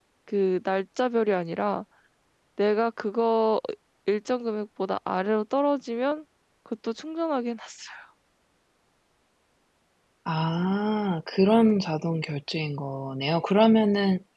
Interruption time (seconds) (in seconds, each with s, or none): none